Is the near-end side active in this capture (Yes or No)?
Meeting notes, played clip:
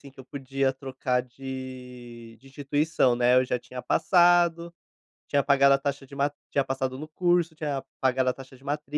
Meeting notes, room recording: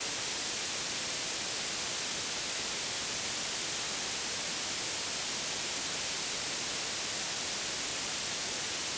No